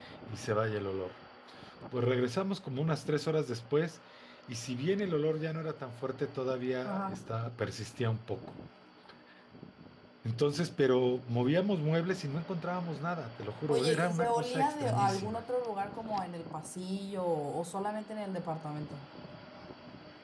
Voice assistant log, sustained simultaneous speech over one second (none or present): present